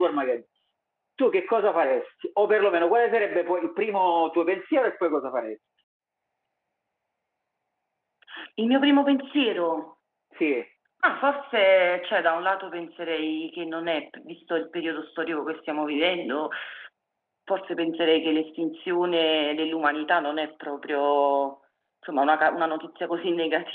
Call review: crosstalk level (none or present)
none